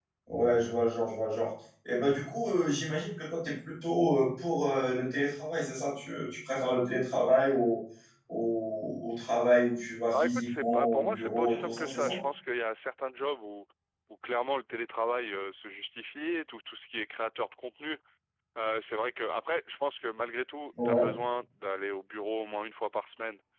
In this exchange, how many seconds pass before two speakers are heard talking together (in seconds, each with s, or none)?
10.1 s